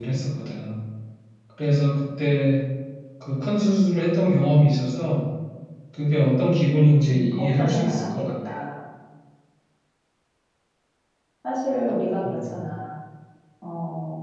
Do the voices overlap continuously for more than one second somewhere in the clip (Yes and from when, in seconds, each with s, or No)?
Yes, from 7.1 s